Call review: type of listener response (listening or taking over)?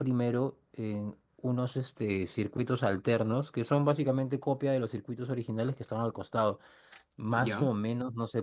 listening